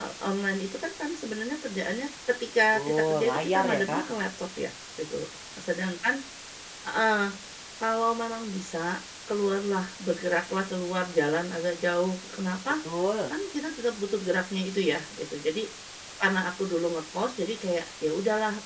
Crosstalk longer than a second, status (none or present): present